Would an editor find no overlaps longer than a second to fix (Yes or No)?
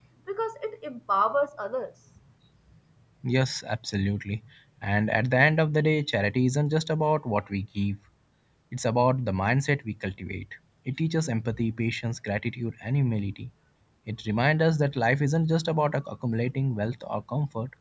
Yes